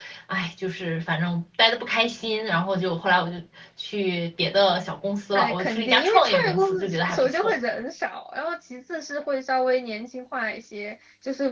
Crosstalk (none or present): present